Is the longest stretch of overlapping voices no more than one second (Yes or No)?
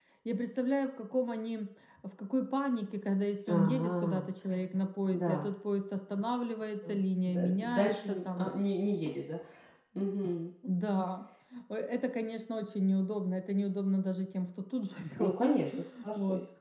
No